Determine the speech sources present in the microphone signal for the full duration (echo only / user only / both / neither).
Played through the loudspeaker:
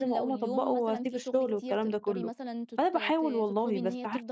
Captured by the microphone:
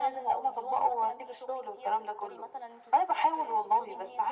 echo only